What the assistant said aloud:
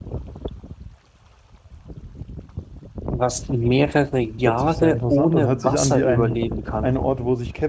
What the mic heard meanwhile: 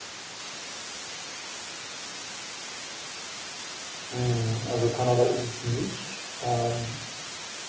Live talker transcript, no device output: Hm, also Kanada ist es nicht. Ähm,

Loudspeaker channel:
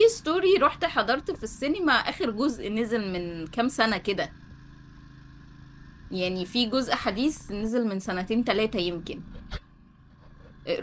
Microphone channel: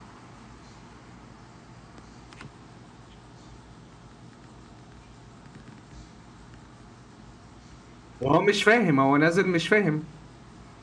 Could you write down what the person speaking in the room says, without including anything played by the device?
وهو مش فاهم هو نازل مش فاهم

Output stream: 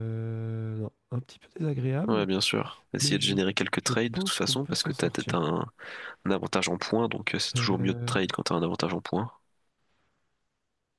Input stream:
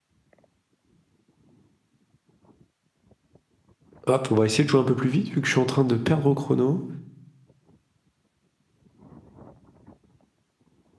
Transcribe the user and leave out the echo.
Hop, on va essayer de jouer un peu plus vite, vu que je suis en train de perdre au chrono.

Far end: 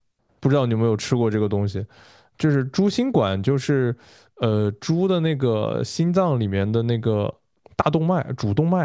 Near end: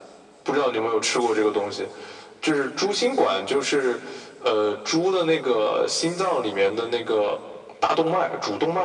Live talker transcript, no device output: none

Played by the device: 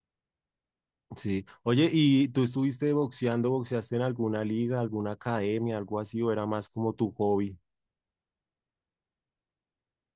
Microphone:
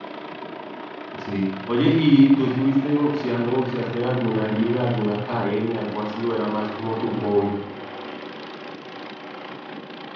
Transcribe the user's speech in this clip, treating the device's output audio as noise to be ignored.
none

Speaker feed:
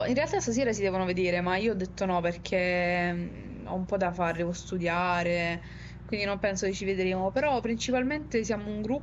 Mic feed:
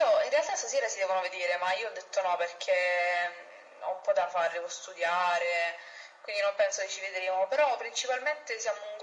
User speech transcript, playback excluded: none

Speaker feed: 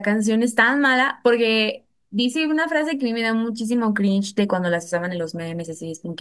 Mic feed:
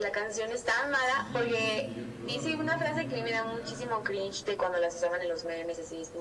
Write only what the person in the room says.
Sí, qué horror, me pongo un filtro y ya.

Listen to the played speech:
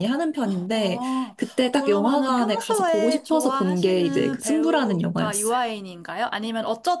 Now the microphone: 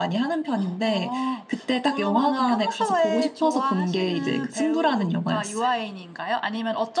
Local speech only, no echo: none

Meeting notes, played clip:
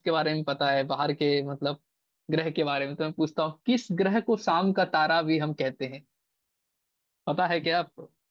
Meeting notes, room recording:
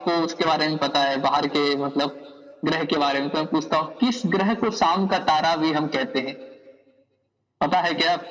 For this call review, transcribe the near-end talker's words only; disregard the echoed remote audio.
none

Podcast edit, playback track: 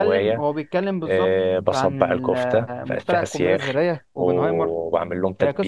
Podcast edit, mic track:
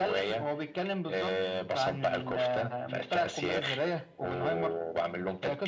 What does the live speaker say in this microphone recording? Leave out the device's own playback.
none

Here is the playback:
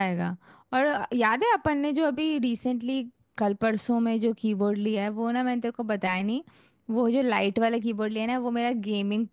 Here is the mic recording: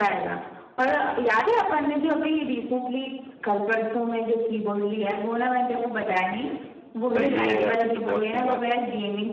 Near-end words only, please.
सही है यार फिर तो बहुत सही बात है

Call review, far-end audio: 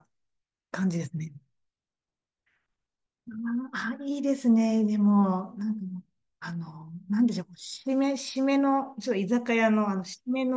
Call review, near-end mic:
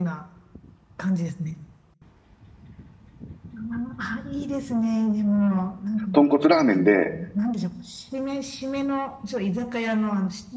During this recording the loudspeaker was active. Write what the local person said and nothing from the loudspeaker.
豚骨ラーメンで、

